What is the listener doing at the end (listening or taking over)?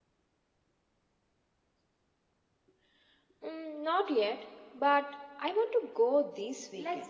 taking over